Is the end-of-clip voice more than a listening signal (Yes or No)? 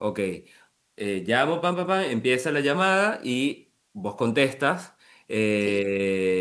No